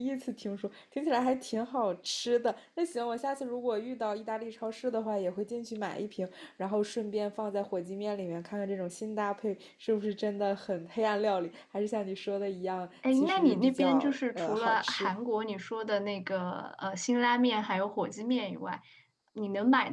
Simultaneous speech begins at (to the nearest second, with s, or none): 13 s